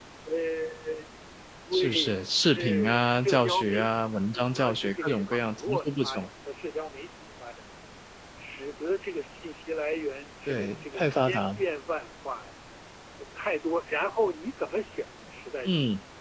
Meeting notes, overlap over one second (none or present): present